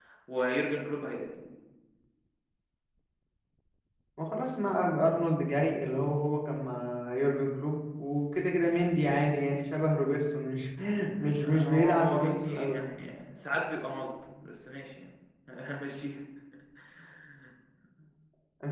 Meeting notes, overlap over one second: present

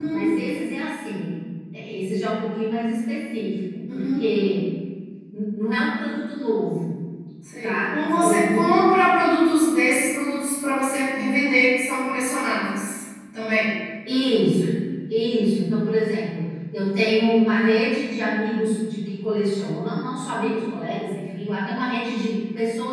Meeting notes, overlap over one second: present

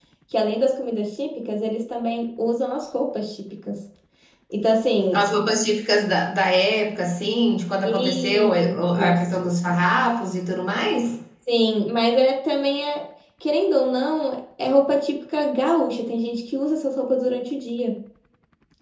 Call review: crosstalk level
present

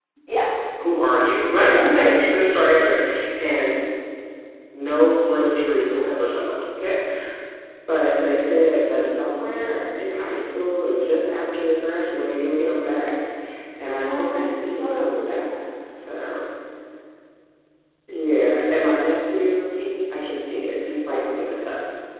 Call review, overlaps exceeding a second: present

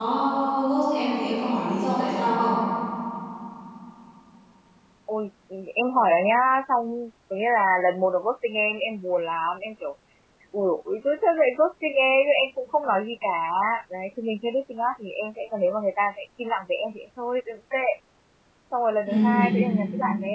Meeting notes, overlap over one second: none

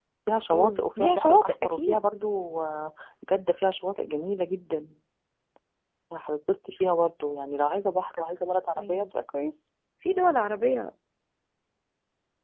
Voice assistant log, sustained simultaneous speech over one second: present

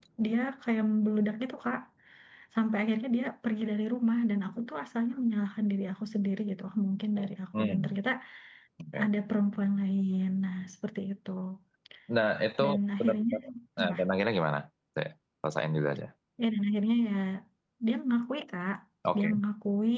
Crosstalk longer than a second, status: none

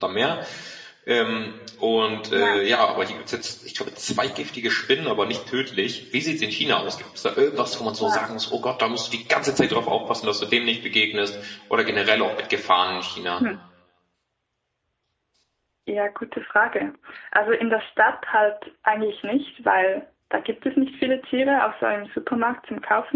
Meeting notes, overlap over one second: none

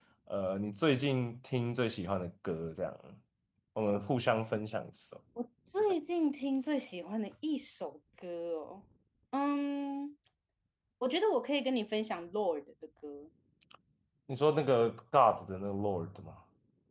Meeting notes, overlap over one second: none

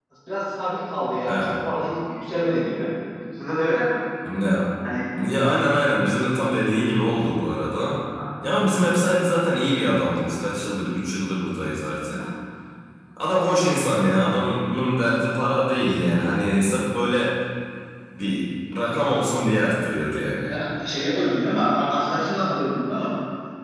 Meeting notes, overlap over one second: none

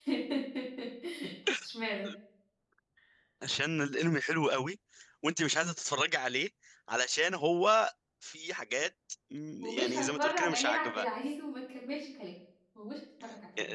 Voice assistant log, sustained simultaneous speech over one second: present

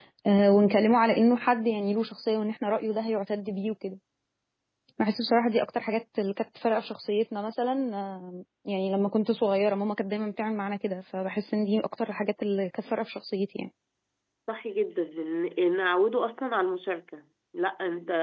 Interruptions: none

